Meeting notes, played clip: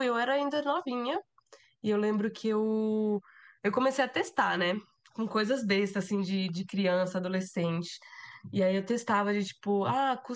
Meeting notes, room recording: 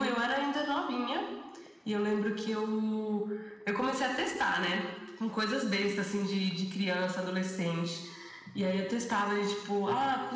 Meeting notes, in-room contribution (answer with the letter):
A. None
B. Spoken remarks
A